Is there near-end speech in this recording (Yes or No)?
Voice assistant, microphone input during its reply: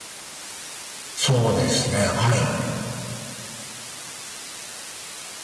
Yes